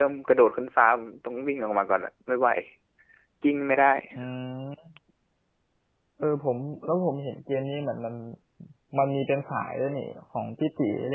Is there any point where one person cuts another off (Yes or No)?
No